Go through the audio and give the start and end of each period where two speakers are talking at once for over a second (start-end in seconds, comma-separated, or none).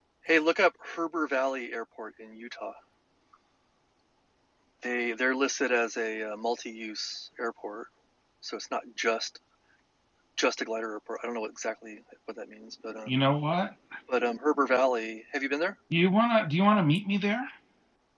none